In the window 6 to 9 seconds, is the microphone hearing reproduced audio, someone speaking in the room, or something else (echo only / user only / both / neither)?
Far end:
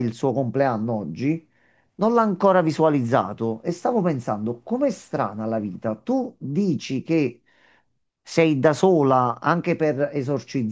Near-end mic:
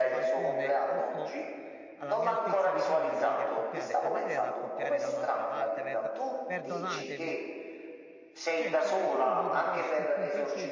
both